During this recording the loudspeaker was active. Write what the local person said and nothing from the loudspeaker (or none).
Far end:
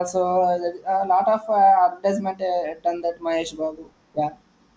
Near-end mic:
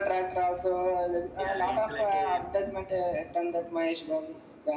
yeah, it's like a